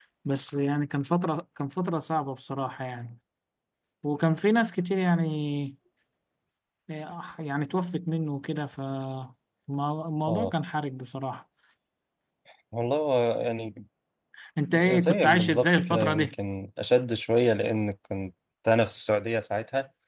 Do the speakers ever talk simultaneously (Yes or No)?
Yes